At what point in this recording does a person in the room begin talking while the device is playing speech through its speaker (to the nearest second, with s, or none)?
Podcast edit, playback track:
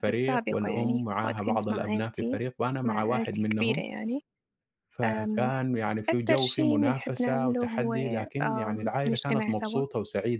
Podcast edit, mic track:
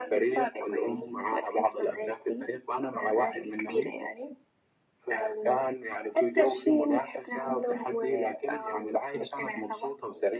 none